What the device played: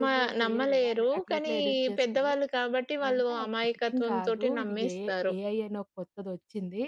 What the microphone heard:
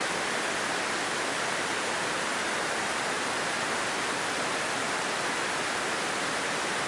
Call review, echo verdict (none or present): none